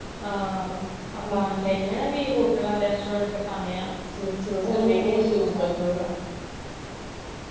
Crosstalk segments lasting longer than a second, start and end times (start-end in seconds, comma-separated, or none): 4.6-5.9